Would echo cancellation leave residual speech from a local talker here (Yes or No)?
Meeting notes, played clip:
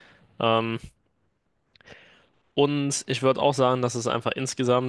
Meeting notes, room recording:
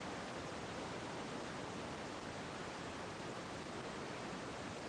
No